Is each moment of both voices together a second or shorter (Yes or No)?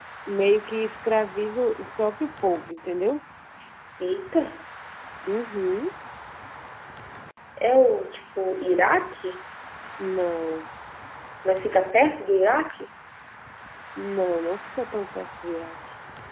Yes